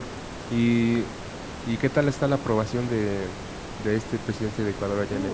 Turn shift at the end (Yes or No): Yes